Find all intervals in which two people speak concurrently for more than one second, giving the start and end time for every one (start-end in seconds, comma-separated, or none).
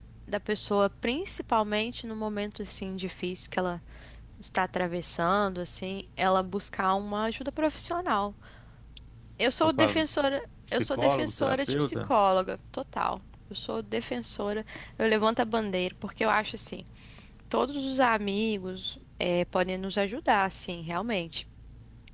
10.7-12.1